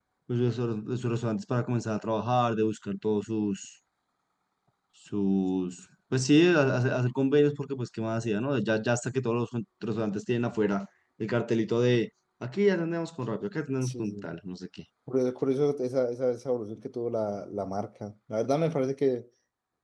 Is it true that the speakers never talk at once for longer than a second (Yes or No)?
Yes